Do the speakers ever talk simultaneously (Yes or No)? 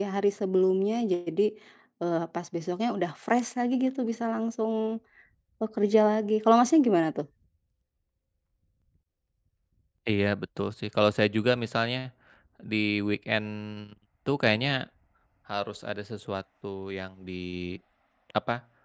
No